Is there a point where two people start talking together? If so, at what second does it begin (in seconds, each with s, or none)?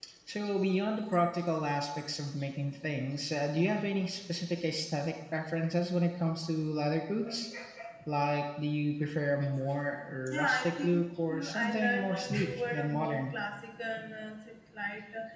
10.3 s